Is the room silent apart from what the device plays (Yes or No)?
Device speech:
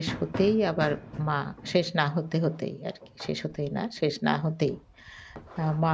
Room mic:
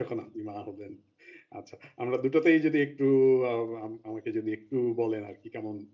No